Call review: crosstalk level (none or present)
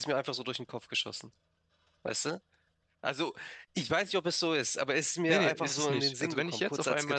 present